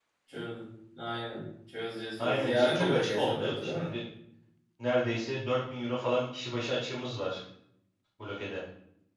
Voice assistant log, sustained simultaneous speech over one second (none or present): present